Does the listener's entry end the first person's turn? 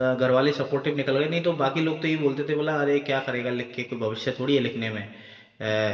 No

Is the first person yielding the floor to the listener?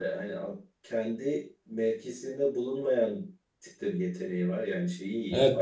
Yes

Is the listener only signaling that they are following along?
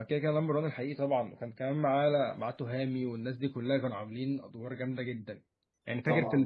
Yes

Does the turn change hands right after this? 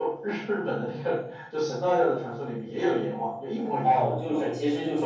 Yes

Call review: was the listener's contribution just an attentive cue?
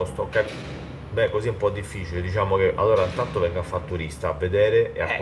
No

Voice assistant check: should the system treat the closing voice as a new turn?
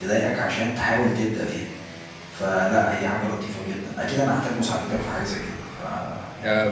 Yes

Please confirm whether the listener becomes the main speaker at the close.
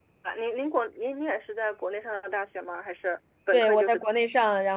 Yes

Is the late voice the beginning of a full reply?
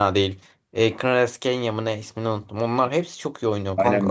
Yes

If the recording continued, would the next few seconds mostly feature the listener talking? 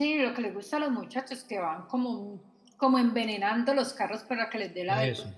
No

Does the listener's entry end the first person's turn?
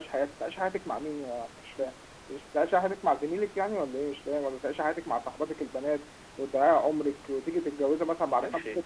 Yes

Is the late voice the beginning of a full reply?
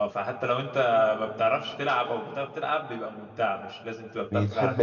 No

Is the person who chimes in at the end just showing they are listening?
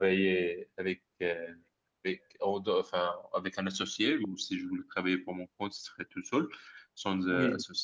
Yes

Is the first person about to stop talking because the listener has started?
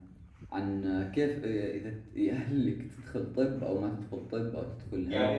Yes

